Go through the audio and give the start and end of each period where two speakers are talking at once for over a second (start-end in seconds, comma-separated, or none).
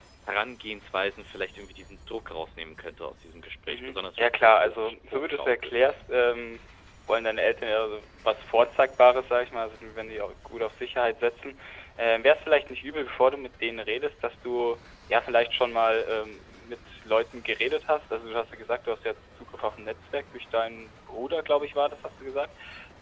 3.7-5.8